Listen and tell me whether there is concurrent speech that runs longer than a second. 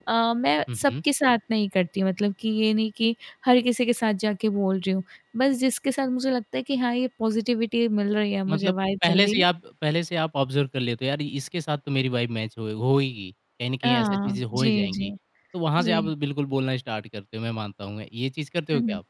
Yes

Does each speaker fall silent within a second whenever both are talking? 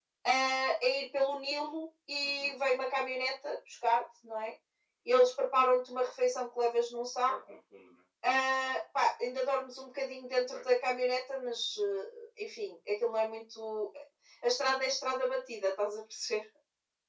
Yes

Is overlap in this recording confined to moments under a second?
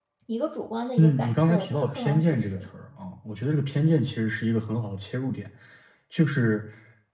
No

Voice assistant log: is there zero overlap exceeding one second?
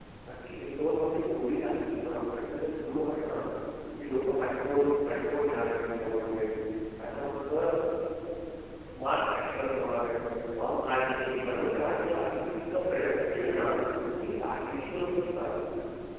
No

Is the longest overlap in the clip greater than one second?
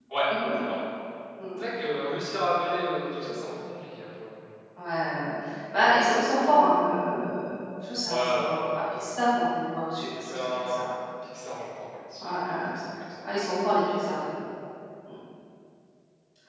No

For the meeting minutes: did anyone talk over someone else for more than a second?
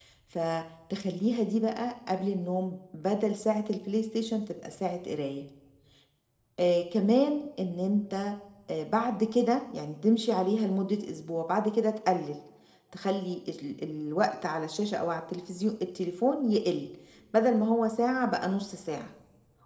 No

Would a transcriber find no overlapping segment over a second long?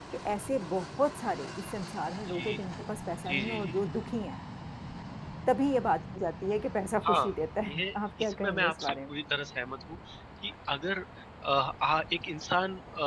No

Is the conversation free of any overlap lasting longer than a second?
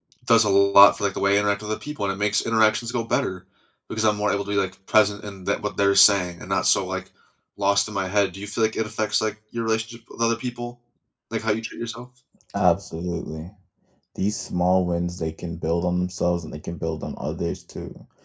Yes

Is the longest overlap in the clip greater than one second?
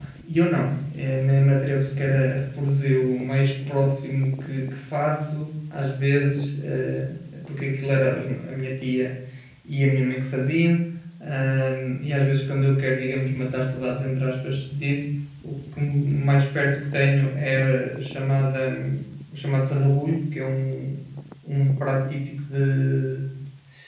No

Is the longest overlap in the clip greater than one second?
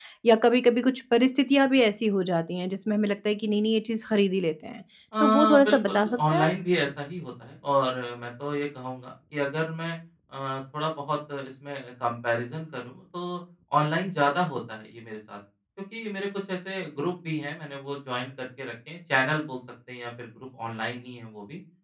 Yes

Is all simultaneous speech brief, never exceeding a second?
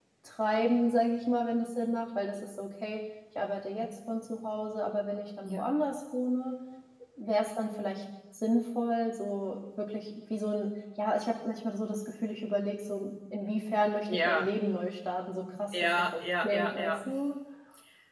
No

